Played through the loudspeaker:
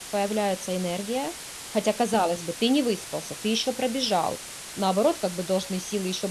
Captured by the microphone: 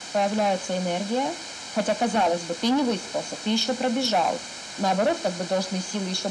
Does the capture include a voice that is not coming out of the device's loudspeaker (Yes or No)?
No